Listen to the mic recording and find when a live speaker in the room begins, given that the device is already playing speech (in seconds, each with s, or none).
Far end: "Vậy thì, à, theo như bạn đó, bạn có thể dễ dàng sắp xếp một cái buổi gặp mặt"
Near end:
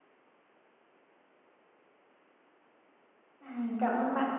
3.4 s